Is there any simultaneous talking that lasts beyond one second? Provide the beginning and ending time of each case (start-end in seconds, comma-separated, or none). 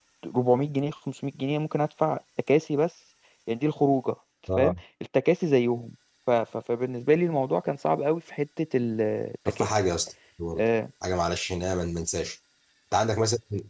none